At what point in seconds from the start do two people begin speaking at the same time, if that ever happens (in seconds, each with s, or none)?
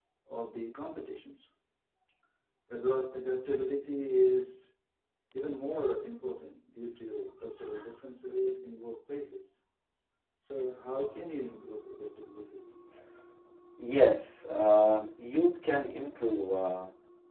none